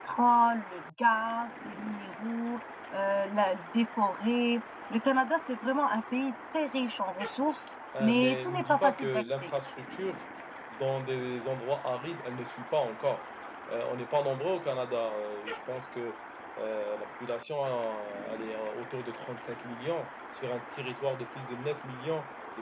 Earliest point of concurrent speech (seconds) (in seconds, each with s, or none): 7.9 s